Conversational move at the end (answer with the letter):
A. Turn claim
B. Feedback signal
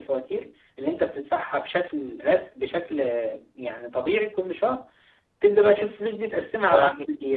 A